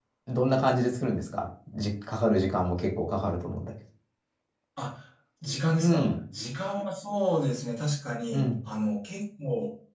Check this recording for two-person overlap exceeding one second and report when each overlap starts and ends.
none

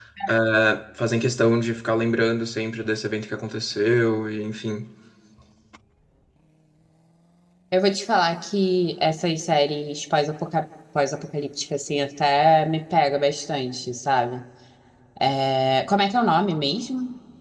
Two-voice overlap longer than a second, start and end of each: none

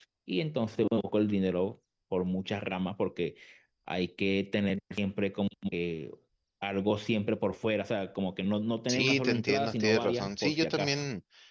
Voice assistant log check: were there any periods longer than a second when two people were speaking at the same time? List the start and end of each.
8.9-11.0

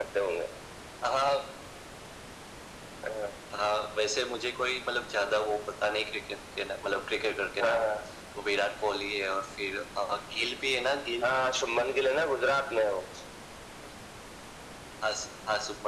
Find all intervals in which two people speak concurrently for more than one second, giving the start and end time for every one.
none

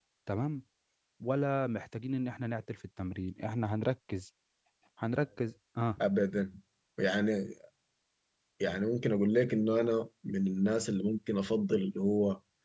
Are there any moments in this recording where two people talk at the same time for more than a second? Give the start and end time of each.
none

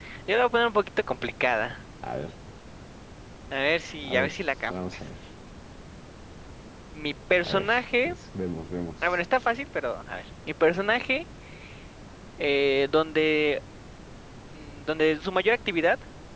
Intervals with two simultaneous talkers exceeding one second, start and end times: none

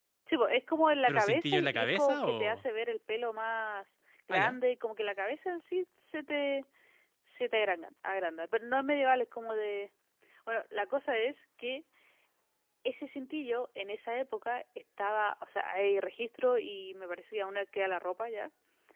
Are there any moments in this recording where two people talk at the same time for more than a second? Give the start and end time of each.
1.1-2.6

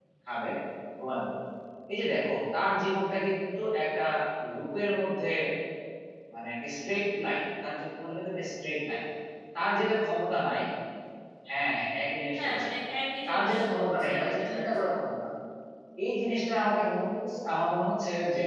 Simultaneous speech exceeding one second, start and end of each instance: 13.3-15.2

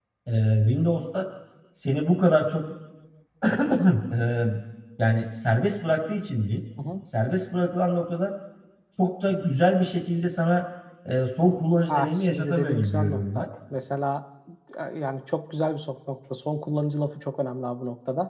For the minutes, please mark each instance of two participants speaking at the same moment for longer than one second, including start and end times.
11.9-13.4

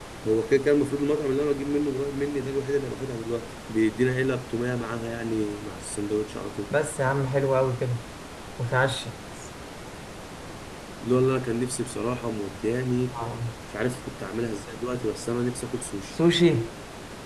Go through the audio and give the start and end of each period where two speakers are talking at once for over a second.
none

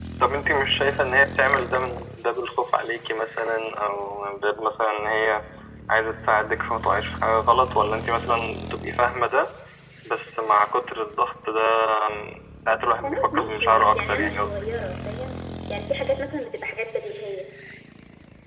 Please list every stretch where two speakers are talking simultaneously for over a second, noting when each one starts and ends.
13.0-14.5

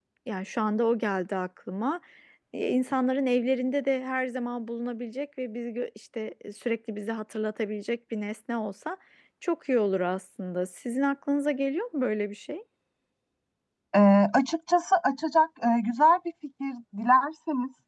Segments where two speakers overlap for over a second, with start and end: none

